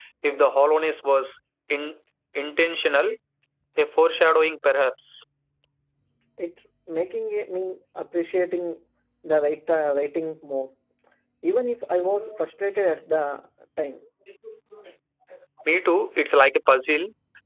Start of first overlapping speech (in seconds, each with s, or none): none